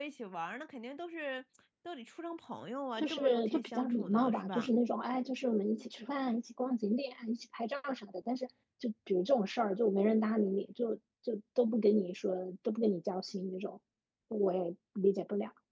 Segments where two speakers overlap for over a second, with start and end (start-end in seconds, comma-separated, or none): 3.0-4.7